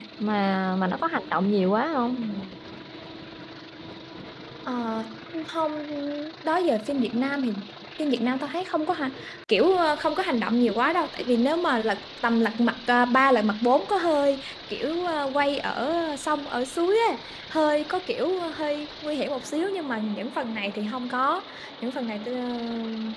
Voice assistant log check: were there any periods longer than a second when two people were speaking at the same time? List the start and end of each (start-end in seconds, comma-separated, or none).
none